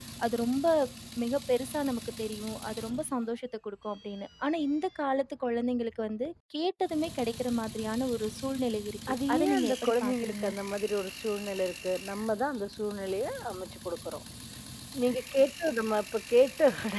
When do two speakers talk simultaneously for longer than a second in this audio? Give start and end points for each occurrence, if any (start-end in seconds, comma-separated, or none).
9.1-10.5